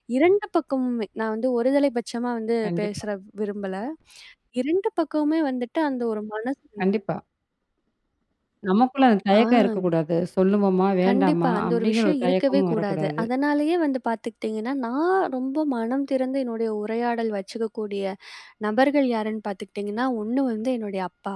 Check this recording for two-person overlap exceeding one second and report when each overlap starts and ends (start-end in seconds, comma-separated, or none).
11.1-13.2